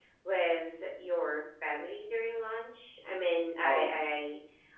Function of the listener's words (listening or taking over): listening